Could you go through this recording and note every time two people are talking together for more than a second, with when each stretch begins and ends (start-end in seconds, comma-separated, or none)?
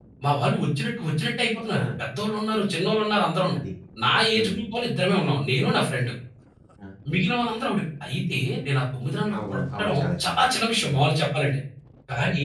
9.5-11.0